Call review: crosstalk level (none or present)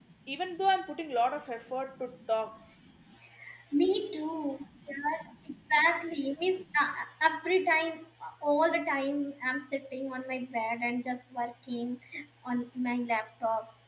none